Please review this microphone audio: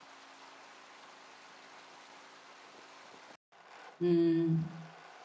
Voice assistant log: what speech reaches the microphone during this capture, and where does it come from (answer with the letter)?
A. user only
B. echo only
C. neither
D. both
A